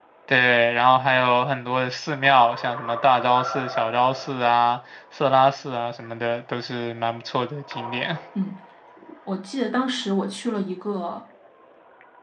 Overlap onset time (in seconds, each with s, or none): none